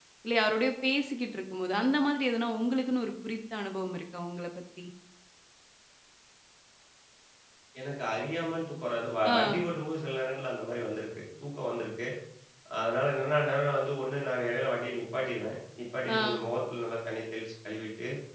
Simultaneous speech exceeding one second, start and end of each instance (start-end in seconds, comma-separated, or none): none